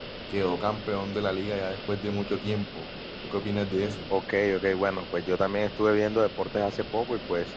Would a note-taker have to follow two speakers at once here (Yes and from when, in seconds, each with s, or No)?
No